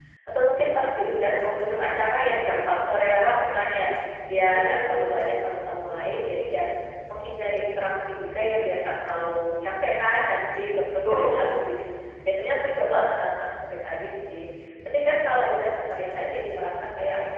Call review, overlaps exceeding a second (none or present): present